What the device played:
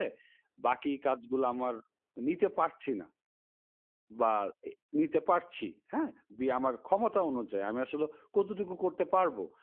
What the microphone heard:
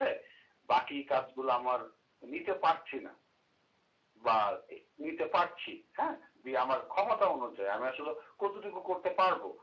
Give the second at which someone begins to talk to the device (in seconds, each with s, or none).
none